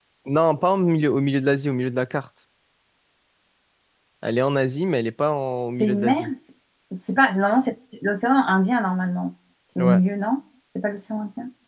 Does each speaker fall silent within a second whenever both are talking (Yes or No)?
Yes